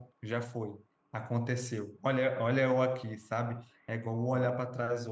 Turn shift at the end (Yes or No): No